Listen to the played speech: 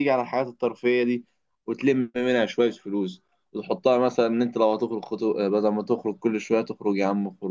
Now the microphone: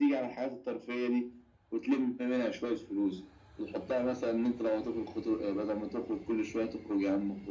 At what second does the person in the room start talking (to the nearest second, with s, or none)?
none